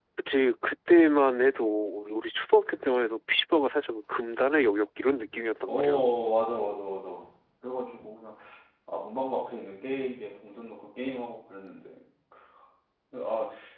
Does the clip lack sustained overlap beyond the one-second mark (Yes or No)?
Yes